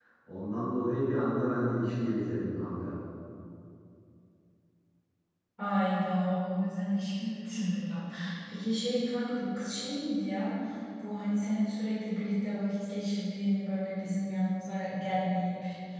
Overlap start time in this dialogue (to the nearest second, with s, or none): none